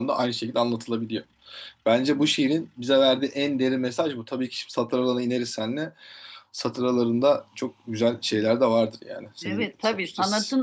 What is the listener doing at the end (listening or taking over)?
taking over